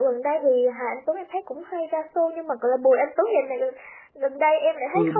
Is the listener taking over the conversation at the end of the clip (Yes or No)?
Yes